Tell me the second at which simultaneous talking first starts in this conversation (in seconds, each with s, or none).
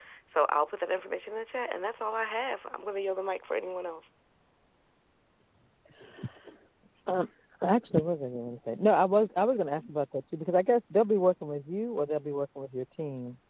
none